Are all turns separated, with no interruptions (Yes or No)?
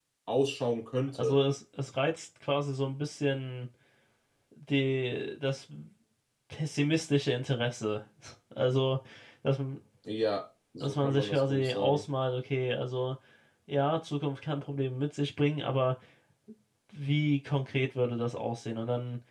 No